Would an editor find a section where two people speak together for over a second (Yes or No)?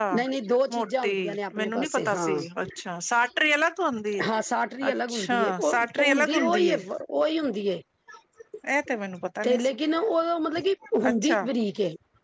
Yes